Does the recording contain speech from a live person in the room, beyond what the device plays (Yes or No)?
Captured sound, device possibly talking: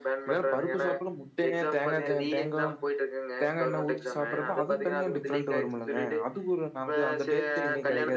Yes